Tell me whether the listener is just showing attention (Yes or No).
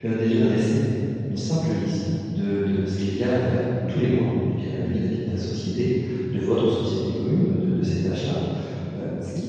Yes